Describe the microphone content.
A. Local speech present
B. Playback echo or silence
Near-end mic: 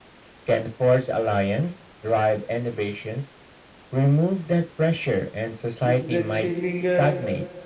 A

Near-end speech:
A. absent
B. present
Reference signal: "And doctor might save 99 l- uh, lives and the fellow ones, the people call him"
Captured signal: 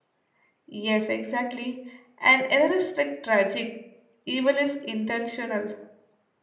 B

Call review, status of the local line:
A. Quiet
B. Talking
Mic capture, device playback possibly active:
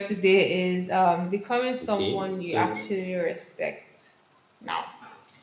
B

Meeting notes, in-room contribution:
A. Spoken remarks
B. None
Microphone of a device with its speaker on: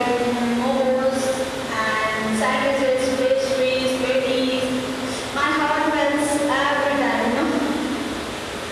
B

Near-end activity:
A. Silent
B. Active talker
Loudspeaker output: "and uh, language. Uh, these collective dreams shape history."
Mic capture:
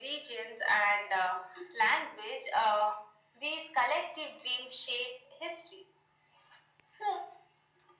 A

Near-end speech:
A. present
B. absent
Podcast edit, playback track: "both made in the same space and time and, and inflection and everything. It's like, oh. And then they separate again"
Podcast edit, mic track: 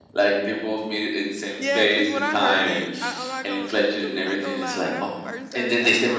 A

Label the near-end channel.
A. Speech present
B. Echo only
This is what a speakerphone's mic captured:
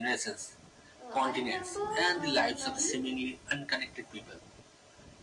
A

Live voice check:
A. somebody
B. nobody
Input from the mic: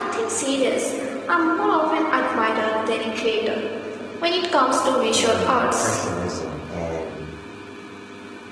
A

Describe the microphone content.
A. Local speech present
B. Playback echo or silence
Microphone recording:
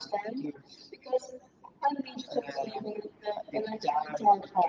B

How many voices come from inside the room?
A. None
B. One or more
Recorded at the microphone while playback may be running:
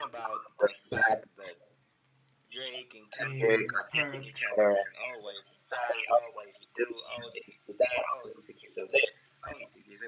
B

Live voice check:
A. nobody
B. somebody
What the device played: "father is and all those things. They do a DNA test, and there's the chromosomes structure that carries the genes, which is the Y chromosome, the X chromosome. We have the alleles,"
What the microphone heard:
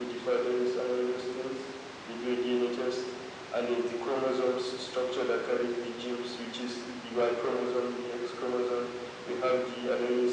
A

